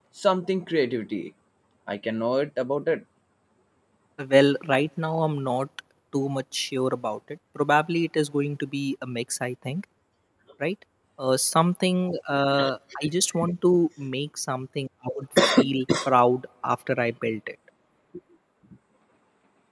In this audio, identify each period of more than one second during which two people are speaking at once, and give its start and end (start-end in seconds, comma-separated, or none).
none